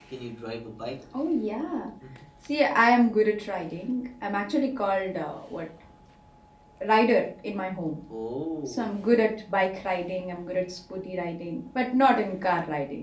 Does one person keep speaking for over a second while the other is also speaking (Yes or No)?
No